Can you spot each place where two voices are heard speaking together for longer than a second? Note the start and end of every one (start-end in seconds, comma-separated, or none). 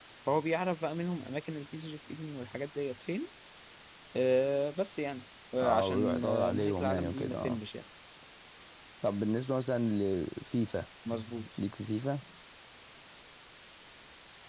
5.6-7.6